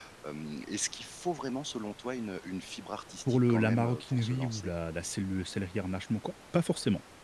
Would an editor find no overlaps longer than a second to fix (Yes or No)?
No